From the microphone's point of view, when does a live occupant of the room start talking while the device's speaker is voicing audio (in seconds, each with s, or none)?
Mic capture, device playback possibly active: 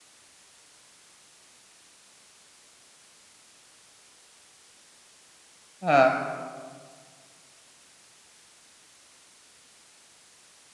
5.8 s